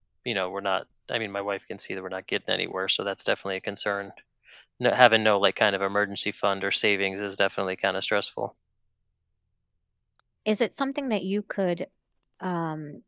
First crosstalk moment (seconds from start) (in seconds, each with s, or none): none